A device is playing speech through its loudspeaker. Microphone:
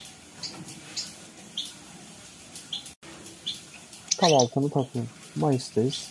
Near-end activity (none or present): present